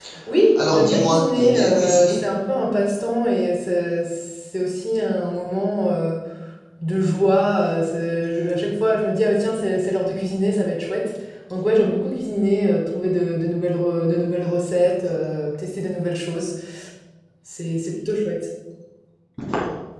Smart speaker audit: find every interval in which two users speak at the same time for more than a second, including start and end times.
0.6-2.2

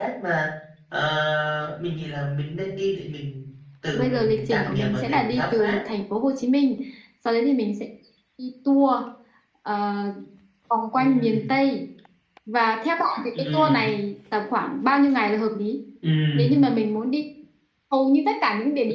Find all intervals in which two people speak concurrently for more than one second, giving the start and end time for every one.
3.9-5.8

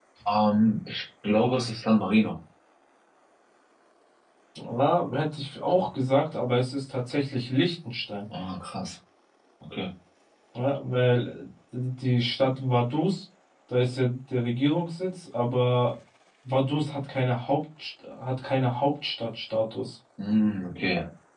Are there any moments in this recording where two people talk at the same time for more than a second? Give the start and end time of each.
none

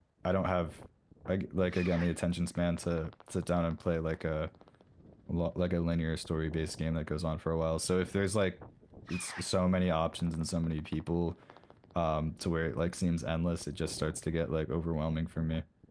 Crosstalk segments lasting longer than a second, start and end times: none

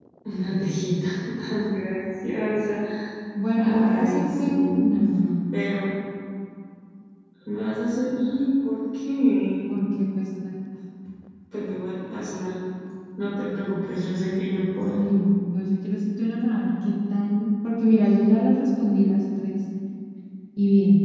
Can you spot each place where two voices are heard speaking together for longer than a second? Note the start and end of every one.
3.5-4.8

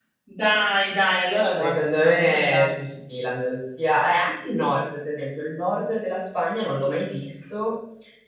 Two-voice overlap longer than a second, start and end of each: 1.6-2.9

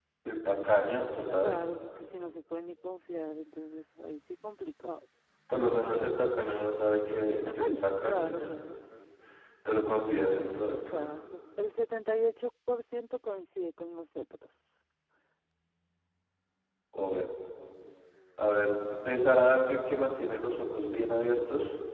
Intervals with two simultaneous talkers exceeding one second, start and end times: 7.3-8.5

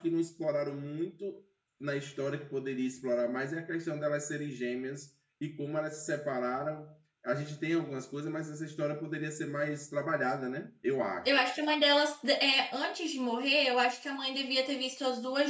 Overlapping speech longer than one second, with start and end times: none

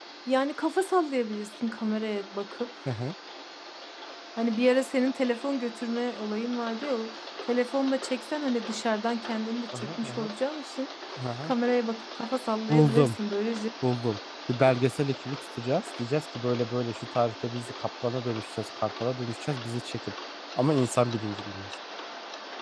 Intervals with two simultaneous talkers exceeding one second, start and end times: none

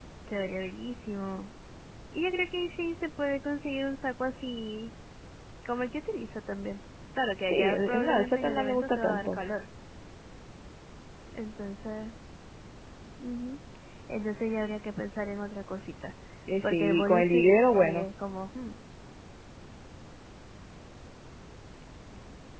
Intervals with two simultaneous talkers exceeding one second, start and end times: 7.5-9.4, 16.6-18.0

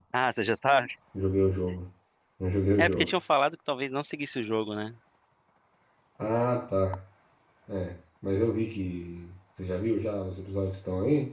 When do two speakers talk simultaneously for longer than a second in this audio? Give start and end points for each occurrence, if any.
none

